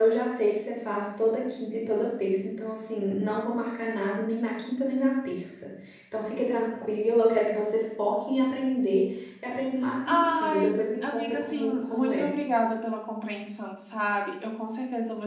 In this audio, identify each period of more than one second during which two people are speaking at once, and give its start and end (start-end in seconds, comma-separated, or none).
10.1-12.3